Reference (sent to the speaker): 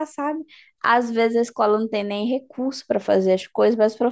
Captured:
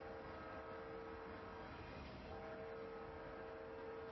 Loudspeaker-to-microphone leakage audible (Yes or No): No